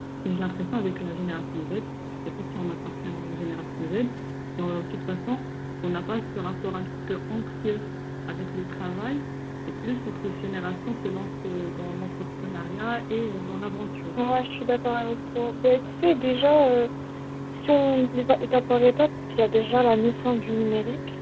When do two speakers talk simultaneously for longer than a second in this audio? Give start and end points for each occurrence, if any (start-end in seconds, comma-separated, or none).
none